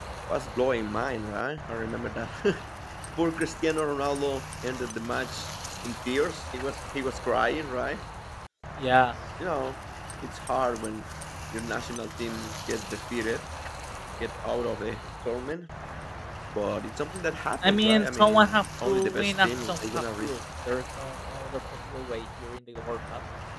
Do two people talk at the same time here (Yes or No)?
Yes